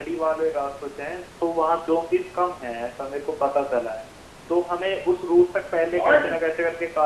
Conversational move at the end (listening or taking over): listening